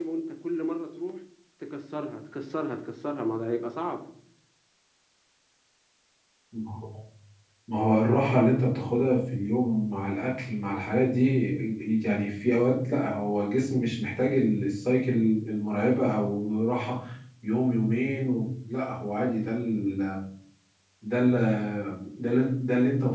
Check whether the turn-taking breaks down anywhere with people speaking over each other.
No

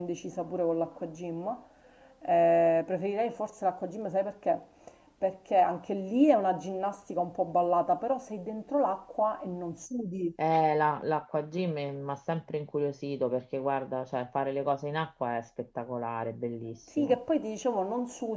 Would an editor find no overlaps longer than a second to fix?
Yes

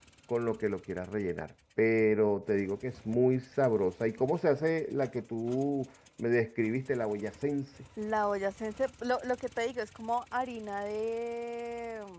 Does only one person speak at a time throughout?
Yes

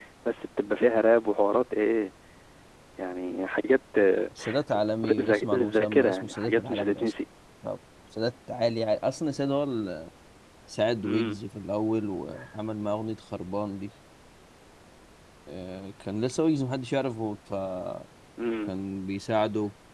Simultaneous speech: Yes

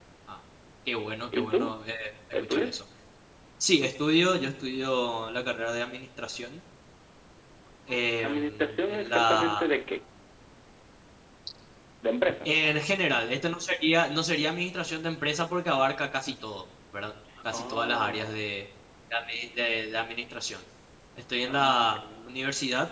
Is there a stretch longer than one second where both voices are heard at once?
Yes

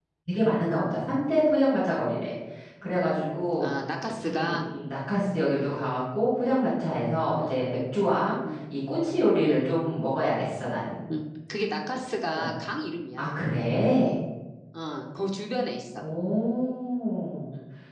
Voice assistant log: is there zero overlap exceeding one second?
Yes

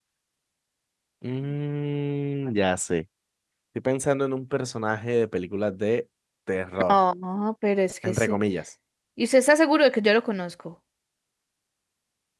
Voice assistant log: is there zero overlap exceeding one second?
Yes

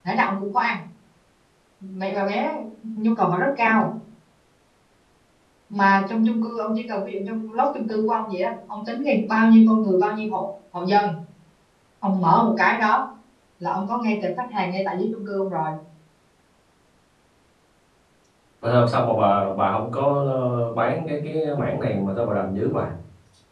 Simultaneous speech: No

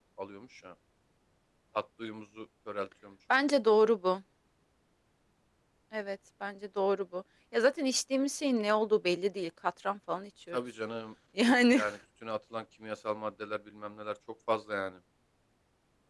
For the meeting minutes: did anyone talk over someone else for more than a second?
No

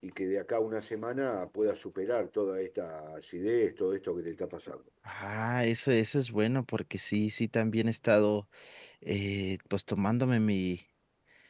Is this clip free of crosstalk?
Yes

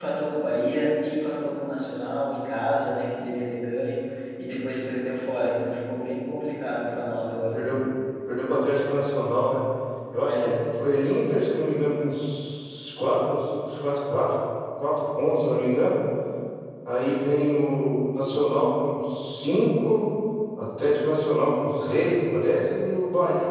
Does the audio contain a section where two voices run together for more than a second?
No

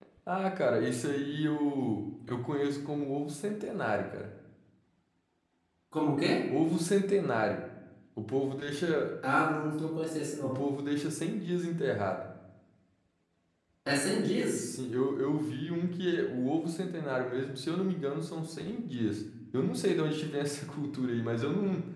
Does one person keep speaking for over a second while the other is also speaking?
No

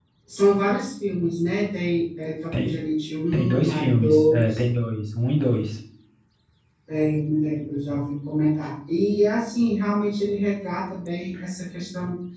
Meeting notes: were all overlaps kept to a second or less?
No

